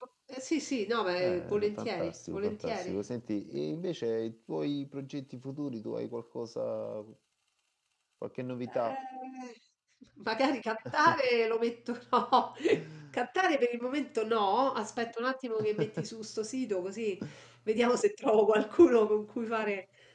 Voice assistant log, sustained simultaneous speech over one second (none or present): present